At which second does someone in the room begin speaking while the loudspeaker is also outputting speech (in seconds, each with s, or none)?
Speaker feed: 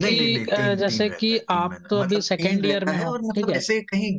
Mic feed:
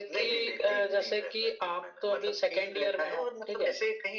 none